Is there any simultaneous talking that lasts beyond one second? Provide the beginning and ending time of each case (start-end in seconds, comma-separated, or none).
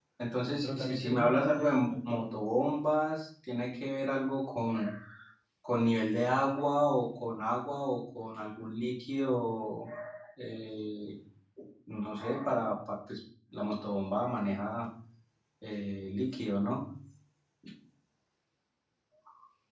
0.6-2.3